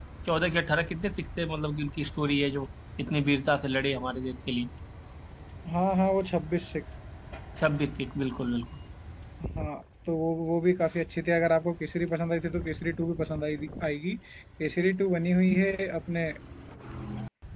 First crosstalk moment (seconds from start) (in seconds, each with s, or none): none